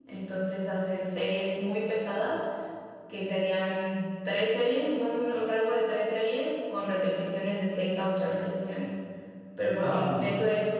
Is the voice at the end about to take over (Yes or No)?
No